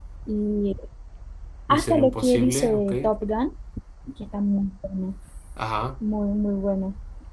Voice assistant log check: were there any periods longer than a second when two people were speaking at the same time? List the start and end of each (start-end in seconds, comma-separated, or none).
1.7-2.9